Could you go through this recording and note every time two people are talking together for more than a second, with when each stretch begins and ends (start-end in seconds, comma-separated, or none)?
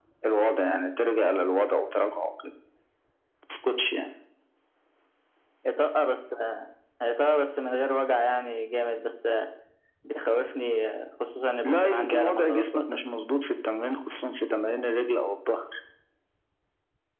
11.6-13.0